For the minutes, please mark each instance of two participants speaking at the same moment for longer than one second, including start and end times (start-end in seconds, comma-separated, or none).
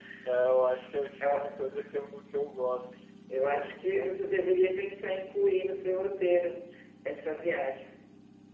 none